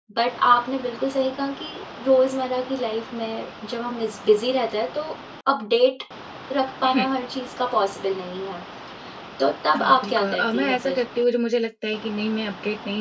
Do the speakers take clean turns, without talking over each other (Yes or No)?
No